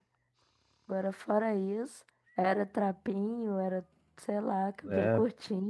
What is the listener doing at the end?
taking over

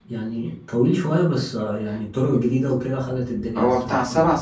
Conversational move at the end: taking over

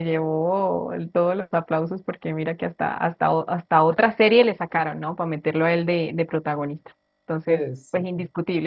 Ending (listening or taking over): listening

